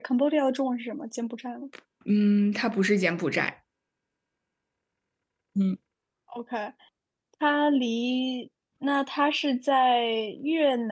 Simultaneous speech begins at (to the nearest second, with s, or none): none